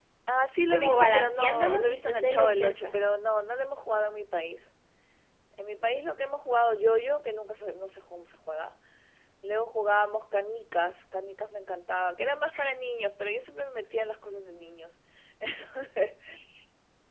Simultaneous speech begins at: 0.7 s

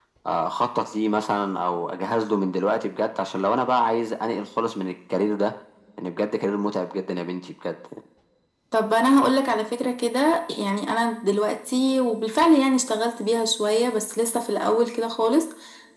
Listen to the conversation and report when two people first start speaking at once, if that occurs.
none

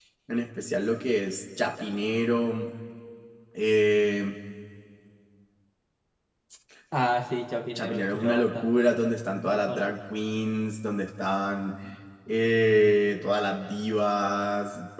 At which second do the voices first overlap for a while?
7.8 s

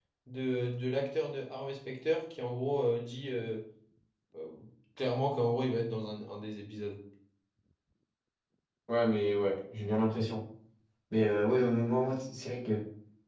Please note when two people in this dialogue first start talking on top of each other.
none

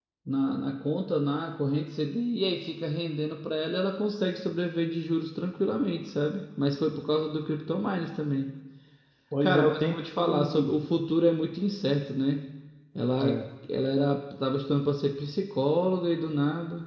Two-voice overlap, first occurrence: 9.4 s

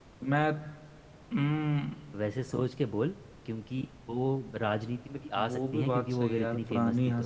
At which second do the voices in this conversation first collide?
5.3 s

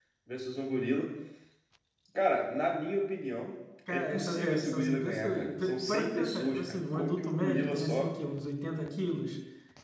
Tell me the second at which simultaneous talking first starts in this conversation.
3.9 s

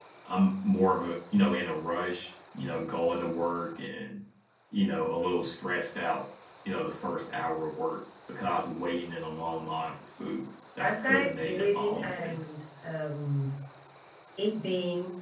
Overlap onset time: 10.8 s

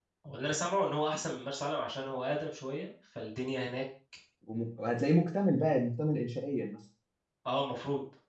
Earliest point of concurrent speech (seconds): none

